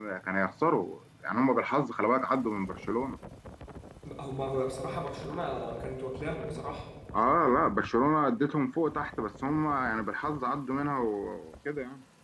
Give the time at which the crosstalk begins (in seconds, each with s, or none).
none